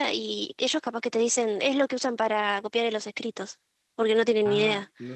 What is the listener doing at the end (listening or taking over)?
taking over